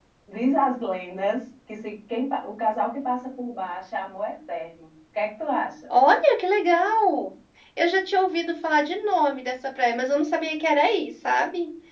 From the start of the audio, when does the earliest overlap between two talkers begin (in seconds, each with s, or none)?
none